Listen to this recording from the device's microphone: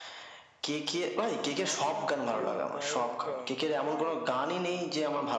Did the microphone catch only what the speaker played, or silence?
No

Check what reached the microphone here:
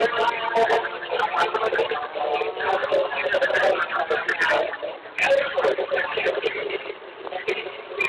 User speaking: No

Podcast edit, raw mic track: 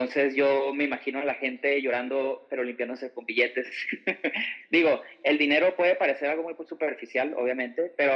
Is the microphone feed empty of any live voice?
Yes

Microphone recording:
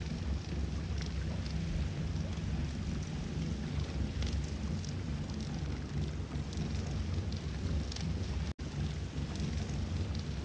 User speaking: No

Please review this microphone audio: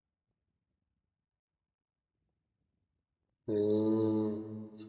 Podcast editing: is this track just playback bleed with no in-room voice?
No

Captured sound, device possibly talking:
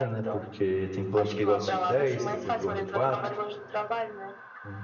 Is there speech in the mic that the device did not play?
Yes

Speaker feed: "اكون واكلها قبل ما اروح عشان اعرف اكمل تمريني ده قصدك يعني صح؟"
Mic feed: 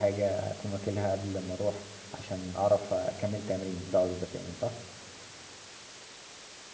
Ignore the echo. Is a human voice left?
No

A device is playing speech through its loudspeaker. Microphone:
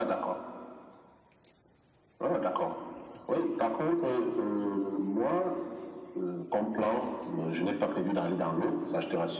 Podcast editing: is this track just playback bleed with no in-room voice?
Yes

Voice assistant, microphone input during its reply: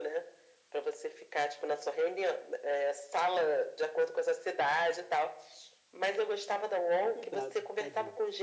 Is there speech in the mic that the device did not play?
Yes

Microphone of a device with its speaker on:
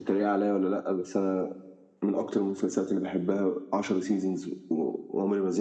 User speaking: No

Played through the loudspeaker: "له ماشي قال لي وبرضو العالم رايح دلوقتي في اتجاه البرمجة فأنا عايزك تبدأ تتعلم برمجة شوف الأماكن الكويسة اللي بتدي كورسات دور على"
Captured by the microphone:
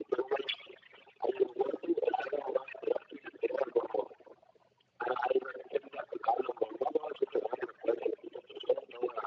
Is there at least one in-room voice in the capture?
No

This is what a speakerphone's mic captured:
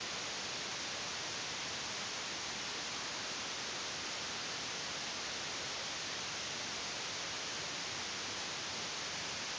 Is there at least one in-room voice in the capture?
No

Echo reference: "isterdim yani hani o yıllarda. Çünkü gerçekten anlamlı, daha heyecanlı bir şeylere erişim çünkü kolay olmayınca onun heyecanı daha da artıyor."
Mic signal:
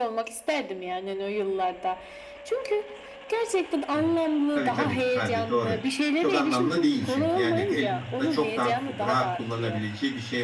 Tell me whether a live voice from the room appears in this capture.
Yes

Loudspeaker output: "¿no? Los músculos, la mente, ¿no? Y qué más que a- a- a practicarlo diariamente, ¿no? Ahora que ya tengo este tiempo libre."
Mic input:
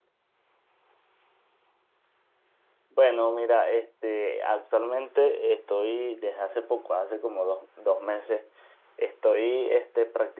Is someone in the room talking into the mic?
Yes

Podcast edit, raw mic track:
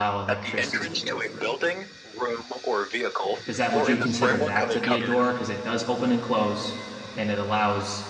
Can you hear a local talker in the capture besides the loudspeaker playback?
Yes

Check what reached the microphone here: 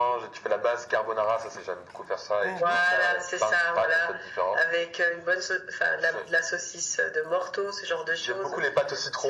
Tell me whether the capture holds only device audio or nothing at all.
No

